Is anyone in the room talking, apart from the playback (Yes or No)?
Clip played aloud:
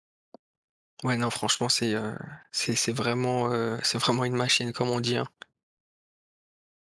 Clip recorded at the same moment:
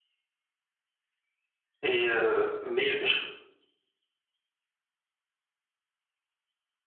Yes